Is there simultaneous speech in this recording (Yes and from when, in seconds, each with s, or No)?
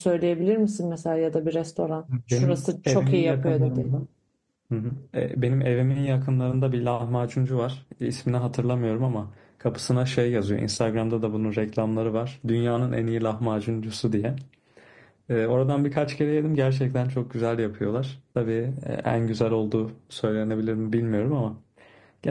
Yes, from 2.1 s